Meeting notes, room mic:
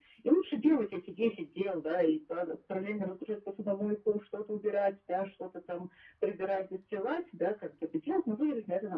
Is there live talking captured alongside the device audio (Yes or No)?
No